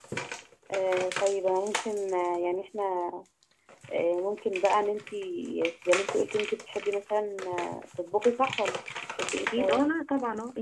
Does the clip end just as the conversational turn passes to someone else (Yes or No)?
Yes